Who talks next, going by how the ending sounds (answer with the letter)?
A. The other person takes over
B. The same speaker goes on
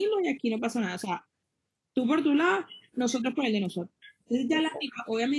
B